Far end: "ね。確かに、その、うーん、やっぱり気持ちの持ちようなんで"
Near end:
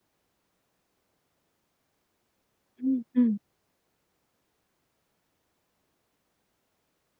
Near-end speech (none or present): present